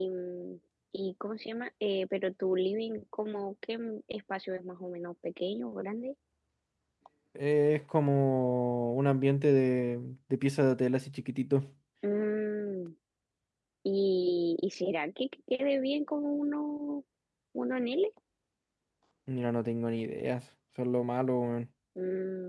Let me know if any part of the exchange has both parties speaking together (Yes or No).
No